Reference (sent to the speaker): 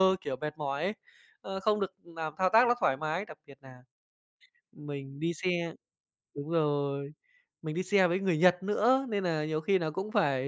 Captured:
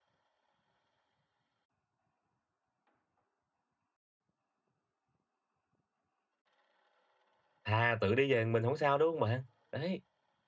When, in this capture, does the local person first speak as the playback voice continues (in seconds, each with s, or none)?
7.6 s